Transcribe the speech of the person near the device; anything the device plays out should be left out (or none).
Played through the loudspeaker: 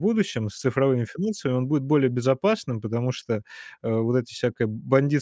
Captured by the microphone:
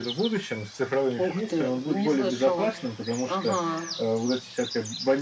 Ух ты, и не слышала. Ага,